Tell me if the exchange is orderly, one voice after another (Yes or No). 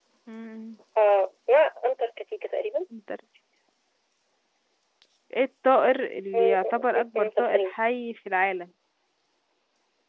No